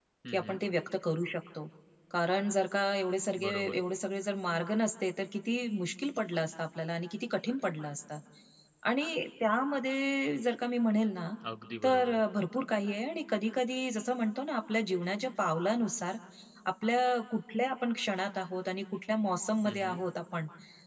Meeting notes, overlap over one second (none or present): none